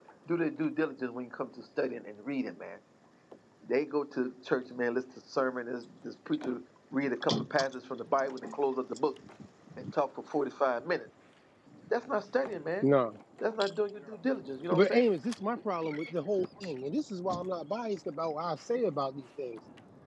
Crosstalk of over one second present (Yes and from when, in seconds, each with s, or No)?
No